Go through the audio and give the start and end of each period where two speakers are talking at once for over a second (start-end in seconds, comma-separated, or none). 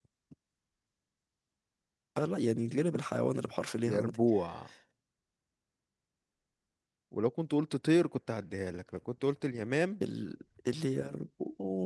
none